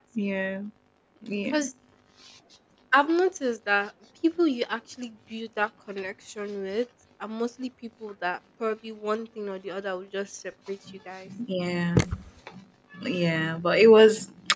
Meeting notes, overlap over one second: none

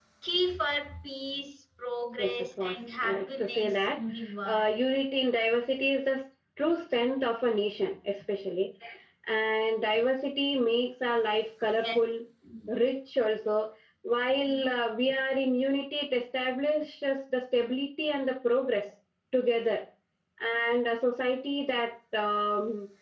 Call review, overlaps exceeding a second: present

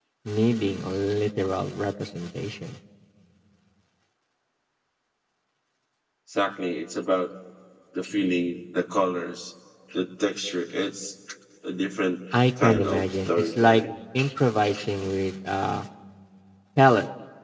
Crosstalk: present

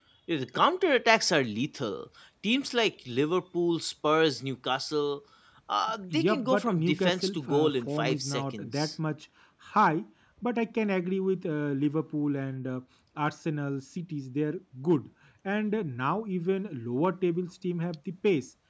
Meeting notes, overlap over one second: present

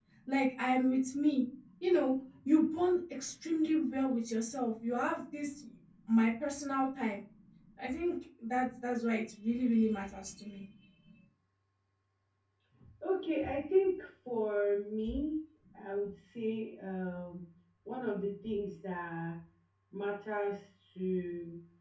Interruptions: none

